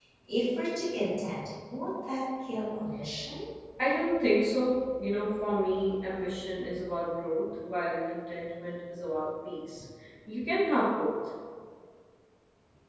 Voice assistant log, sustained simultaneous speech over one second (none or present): none